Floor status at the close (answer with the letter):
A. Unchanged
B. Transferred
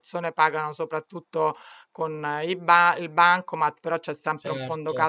A